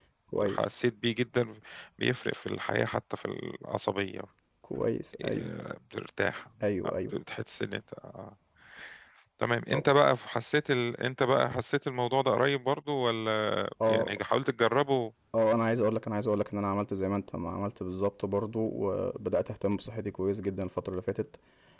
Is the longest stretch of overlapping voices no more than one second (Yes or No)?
Yes